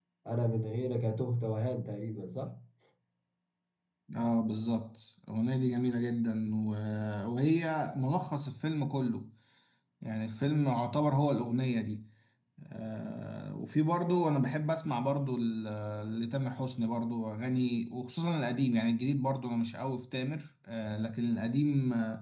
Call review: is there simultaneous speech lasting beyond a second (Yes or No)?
No